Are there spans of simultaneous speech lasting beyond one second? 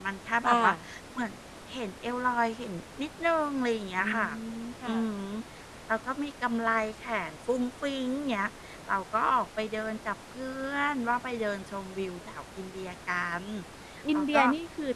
No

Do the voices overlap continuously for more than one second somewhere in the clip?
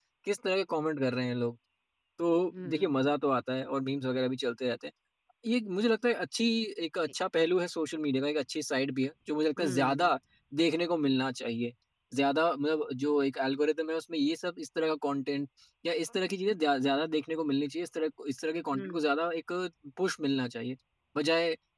No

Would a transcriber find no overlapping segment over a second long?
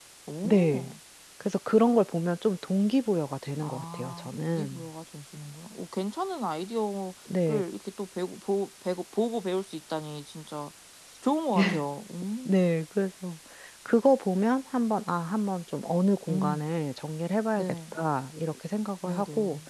No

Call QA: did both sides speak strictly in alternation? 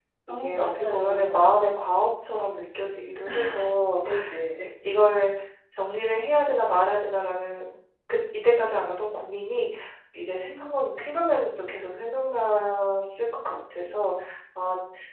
No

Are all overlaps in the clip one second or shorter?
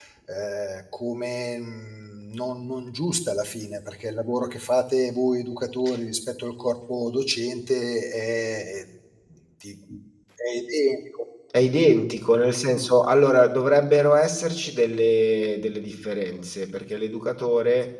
Yes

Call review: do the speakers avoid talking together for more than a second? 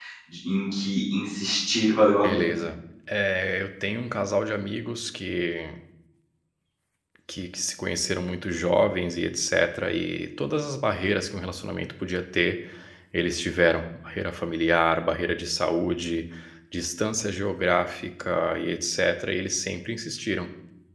Yes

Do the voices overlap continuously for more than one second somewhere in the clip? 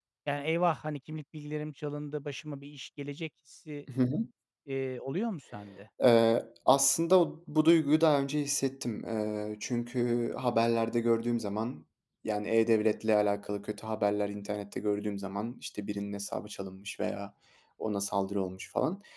No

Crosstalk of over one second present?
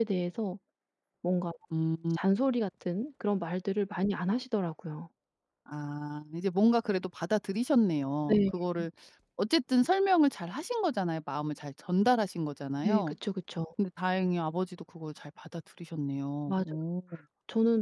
No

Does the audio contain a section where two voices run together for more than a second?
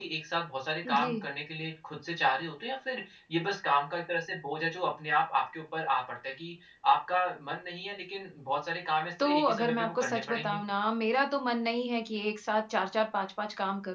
Yes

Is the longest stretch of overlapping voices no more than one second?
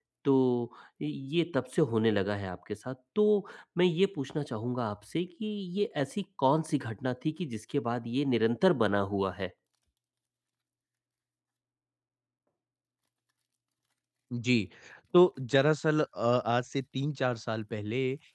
Yes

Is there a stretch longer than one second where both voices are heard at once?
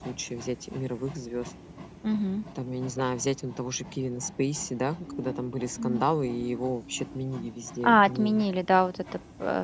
No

